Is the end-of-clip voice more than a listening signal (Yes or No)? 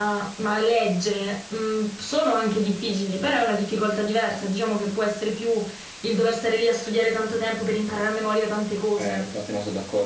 Yes